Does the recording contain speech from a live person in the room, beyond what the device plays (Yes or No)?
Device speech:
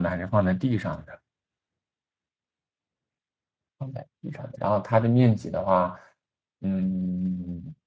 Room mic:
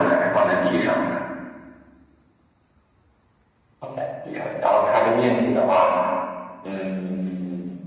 No